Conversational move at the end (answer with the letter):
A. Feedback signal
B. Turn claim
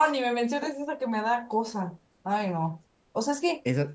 A